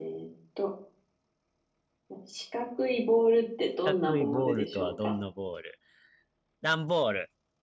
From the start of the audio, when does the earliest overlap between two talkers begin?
3.8 s

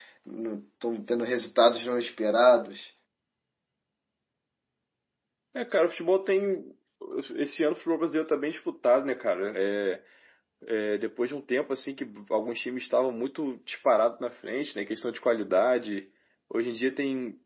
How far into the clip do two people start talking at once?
none

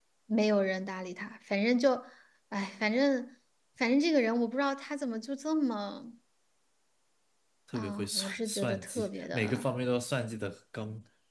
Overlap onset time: 7.7 s

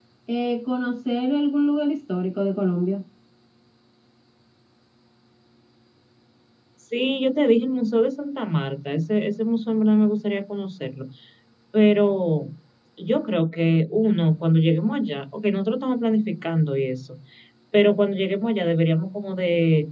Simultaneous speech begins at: none

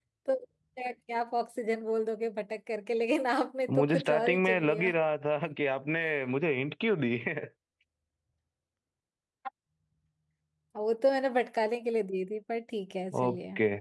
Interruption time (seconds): 3.7 s

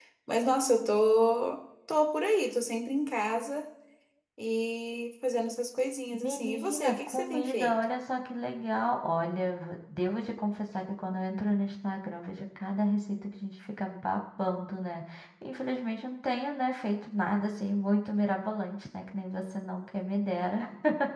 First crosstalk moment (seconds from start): 6.2 s

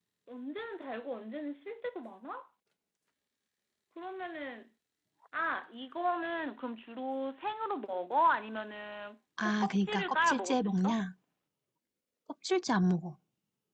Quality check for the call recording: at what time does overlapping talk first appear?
9.4 s

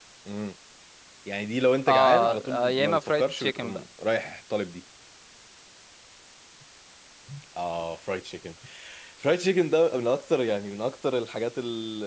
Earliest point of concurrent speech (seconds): 1.9 s

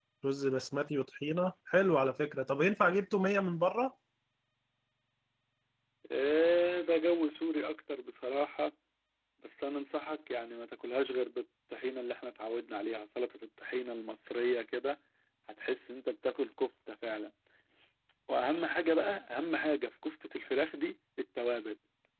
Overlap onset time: none

